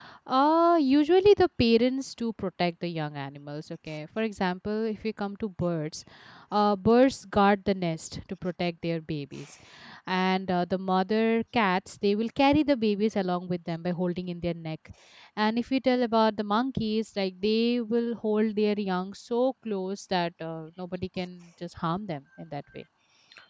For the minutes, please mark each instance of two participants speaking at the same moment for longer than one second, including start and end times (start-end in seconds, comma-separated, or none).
none